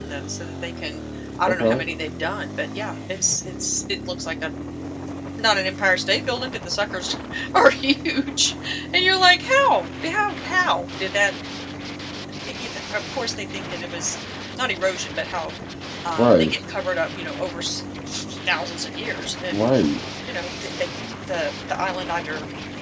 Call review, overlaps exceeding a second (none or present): none